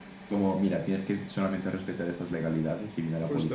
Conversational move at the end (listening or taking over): taking over